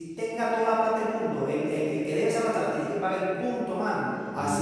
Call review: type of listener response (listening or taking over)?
listening